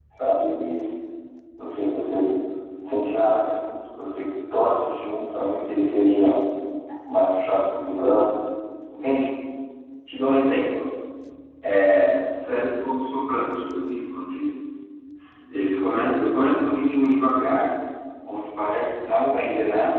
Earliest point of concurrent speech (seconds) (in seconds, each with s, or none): none